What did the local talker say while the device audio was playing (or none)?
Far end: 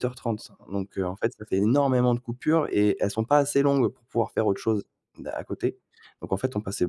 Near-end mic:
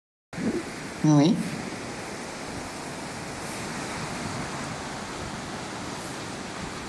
Oui.